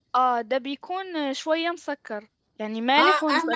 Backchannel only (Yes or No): No